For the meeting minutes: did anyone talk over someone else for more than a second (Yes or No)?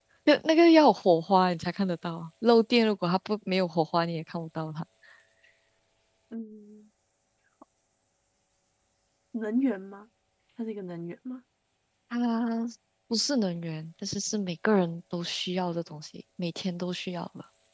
No